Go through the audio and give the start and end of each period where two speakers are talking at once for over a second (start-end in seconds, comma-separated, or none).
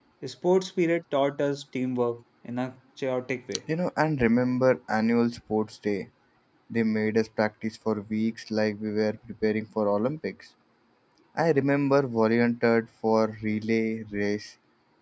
none